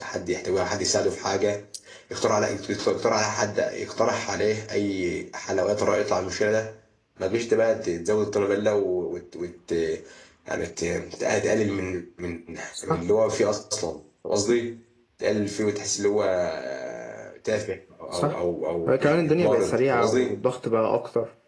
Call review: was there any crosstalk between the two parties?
Yes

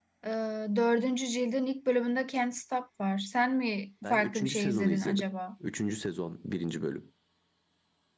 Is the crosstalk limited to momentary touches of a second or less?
No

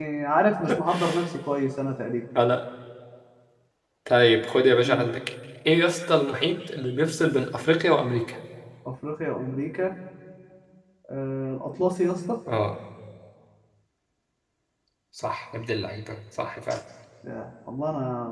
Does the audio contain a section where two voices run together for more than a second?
No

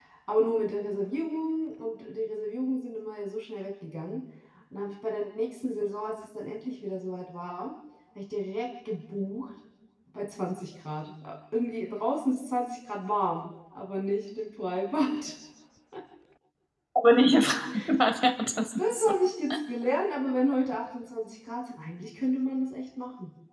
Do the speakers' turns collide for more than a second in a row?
No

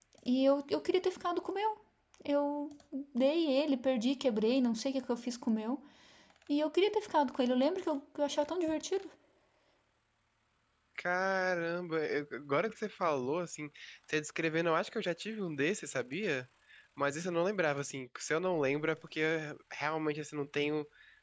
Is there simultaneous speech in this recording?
No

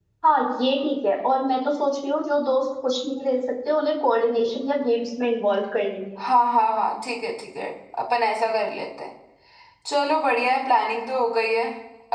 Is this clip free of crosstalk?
Yes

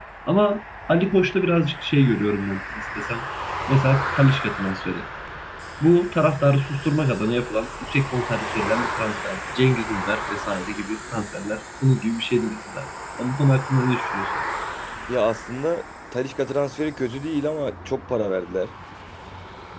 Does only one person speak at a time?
Yes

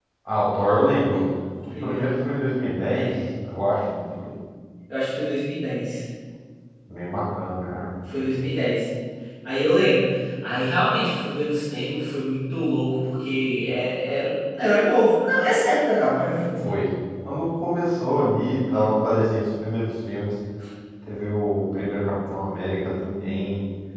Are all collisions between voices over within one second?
Yes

